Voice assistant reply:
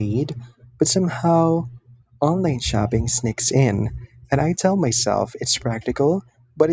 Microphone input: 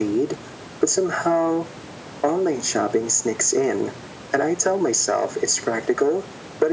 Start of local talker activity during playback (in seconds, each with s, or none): none